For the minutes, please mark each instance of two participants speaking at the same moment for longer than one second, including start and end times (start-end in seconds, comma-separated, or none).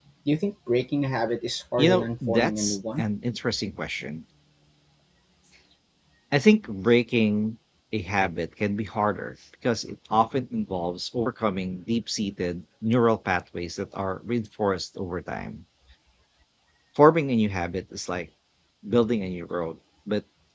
1.8-3.0